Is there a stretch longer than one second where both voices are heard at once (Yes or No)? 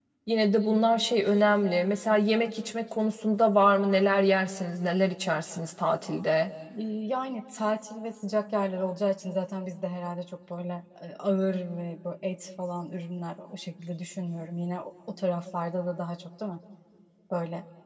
No